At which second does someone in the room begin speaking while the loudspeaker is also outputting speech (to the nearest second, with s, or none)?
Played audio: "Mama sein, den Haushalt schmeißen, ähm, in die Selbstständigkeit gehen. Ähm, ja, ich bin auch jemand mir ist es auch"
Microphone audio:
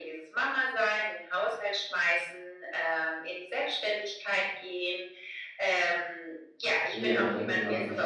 7 s